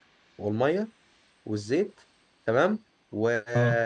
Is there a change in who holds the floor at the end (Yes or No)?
No